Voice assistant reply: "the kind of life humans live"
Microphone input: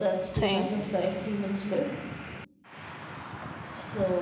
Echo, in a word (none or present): present